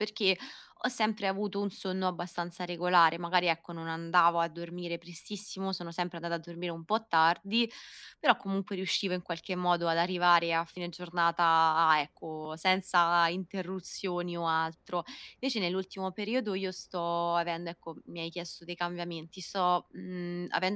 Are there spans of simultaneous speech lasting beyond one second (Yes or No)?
No